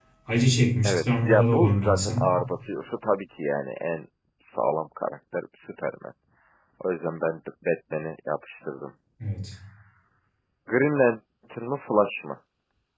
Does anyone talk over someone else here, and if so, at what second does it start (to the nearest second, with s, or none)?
1 s